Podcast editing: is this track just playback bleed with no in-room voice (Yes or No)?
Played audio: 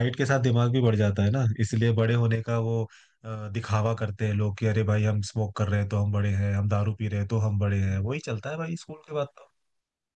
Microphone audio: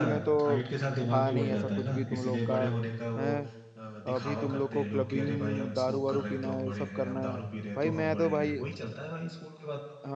No